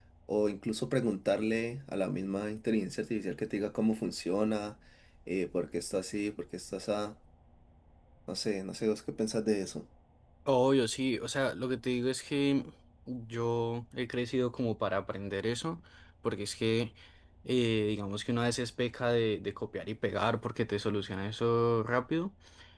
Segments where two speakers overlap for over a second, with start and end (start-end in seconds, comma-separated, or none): none